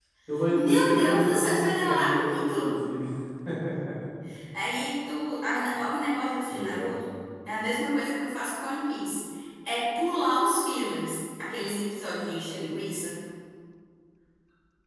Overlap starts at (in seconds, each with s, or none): 0.5 s